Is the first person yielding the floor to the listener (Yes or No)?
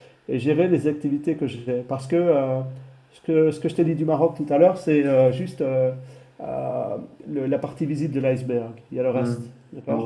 Yes